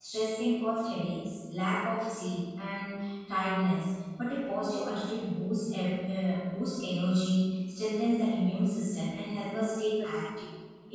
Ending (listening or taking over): listening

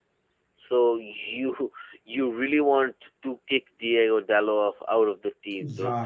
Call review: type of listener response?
taking over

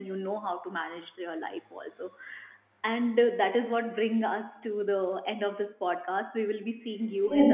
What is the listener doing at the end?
taking over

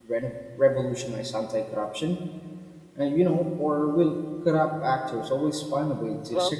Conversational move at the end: taking over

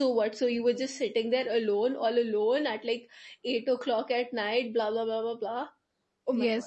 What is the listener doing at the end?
taking over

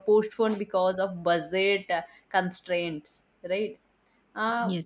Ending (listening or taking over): listening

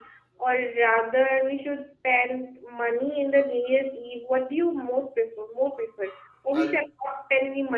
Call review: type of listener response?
listening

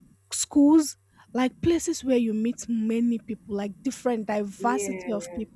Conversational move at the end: listening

